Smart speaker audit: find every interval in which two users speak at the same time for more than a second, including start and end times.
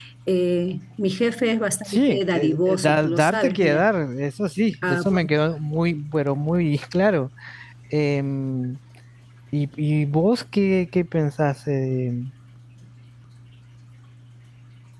1.9-3.9

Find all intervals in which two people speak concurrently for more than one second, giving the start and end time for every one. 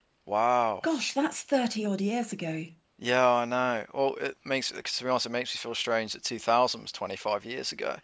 none

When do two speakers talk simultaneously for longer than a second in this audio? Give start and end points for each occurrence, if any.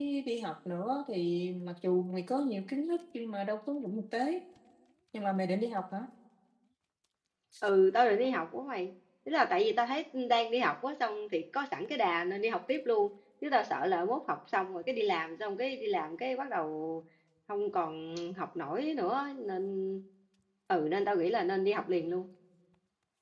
none

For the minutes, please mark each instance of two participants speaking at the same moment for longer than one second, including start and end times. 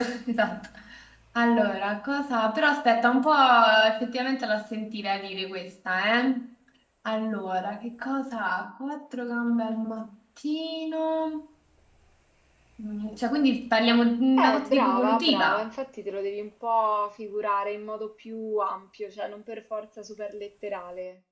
14.4-15.7

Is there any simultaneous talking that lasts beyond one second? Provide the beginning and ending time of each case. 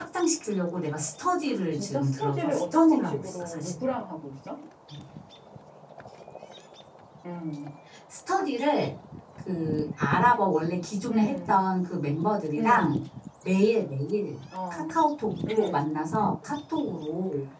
1.7-3.7

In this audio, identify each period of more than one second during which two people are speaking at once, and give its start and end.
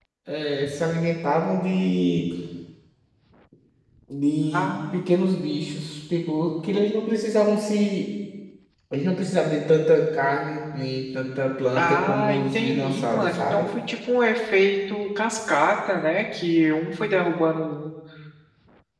11.8-13.7

